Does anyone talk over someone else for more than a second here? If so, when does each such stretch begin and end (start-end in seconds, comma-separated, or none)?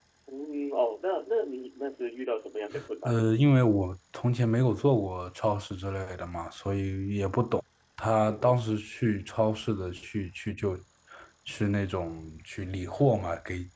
none